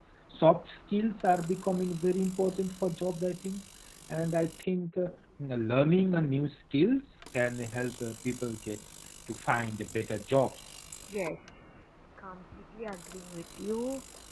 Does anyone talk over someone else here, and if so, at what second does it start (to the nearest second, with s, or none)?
none